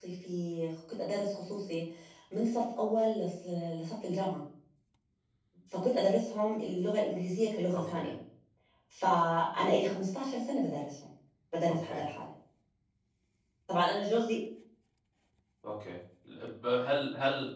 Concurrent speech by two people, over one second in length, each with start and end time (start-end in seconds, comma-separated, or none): none